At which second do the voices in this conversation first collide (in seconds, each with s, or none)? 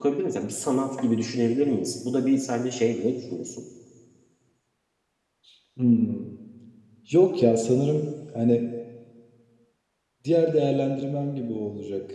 none